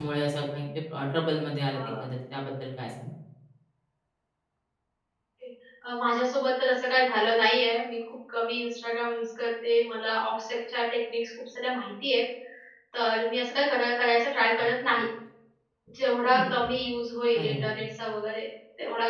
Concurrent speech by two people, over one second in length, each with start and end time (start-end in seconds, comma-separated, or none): none